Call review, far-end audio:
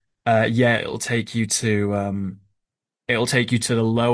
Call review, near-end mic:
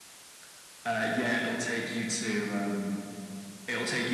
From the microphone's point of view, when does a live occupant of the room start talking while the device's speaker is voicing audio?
none

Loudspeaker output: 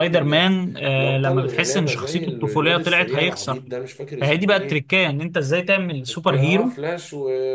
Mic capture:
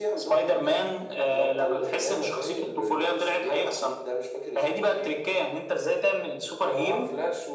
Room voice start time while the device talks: none

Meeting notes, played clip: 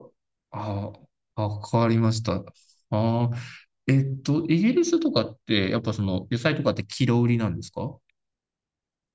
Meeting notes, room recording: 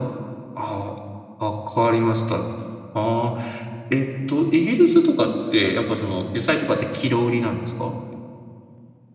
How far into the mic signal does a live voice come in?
none

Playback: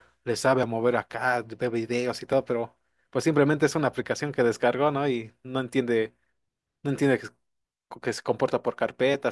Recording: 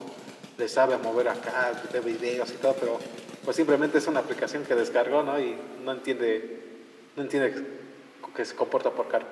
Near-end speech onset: none

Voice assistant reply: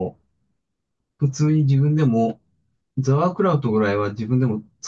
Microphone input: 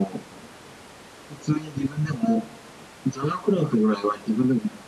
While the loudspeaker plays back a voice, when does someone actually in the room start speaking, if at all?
none

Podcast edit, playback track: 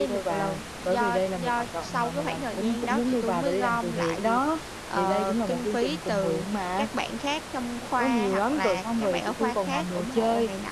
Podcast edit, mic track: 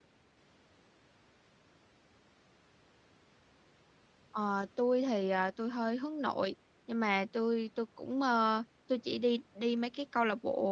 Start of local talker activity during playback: 4 s

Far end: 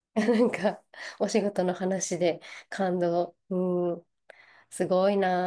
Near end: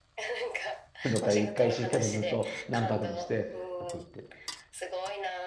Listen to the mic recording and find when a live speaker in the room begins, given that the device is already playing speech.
1 s

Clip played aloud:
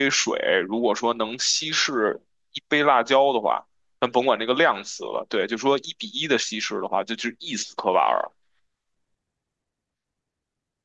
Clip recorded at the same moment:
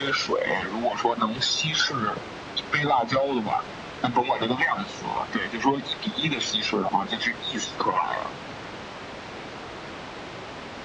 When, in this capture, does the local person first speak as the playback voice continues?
none

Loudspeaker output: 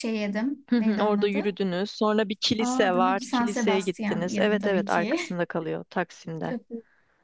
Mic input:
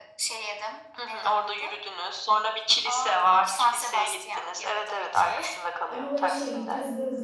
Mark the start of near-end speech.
6 s

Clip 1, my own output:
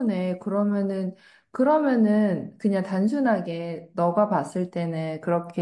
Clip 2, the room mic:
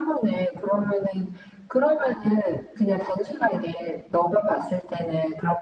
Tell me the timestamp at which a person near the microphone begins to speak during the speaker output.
none

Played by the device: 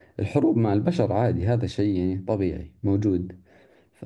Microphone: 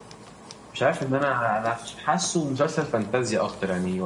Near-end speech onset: 1 s

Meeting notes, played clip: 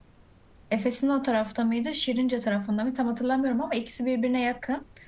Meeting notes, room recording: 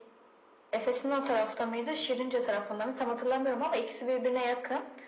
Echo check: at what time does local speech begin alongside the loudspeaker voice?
none

